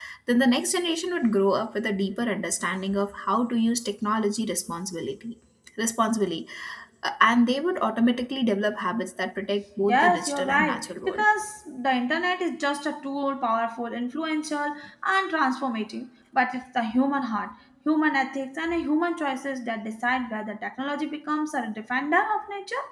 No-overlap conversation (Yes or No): No